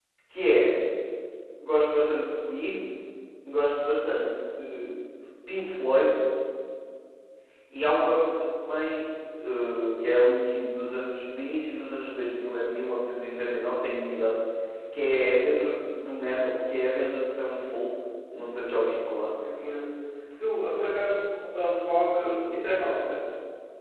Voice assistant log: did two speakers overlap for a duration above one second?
No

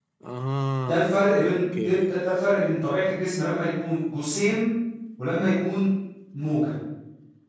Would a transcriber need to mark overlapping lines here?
Yes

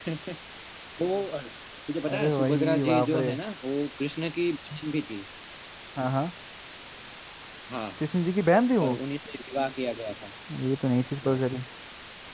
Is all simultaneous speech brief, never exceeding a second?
No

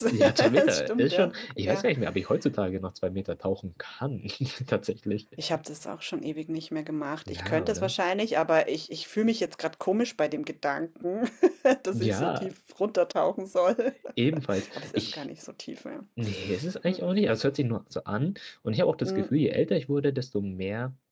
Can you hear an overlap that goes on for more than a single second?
Yes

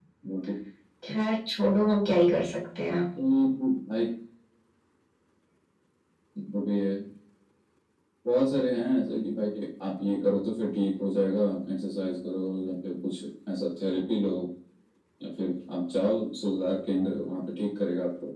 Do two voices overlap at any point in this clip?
No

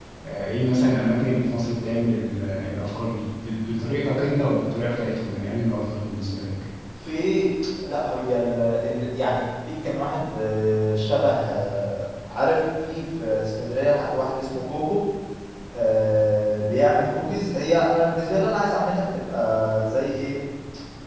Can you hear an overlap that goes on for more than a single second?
No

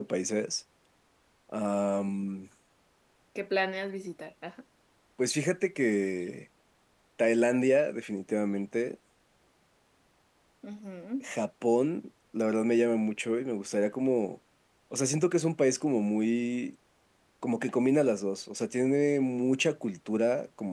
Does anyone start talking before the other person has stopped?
No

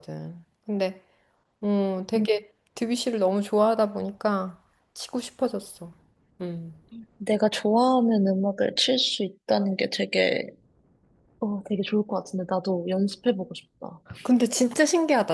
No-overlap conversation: Yes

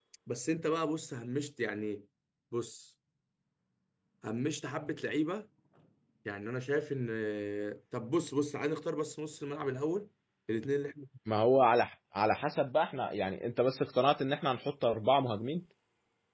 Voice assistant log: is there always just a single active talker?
Yes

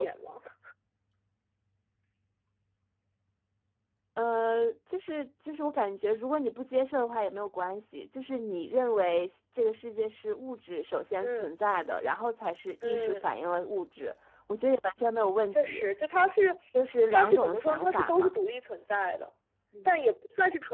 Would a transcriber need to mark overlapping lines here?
Yes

